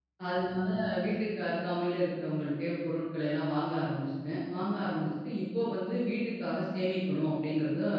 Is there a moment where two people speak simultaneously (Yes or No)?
No